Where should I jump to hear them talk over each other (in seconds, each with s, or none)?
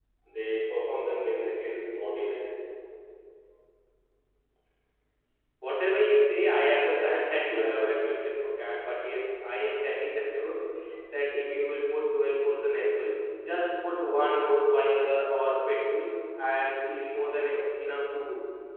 none